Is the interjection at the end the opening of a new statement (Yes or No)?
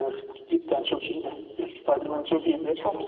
No